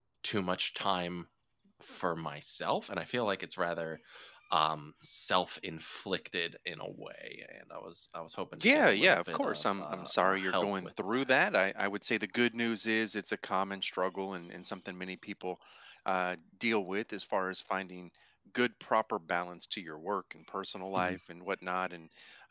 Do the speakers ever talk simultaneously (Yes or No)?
Yes